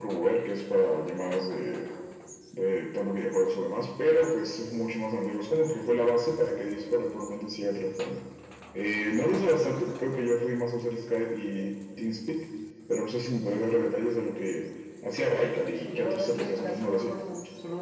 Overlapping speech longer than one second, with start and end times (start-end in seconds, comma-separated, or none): 15.9-17.2